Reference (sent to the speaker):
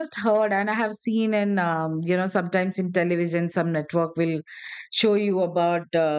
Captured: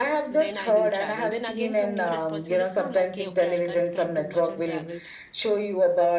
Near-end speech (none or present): present